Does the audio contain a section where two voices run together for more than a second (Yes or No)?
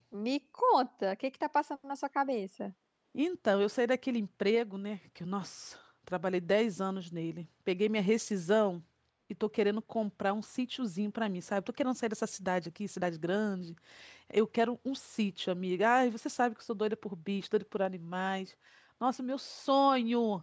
No